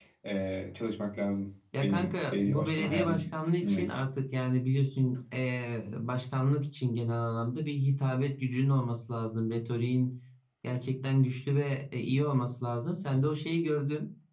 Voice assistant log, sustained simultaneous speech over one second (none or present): present